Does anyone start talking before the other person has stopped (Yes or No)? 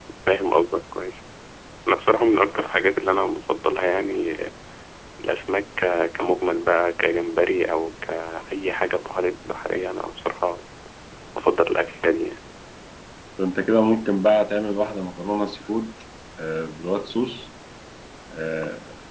No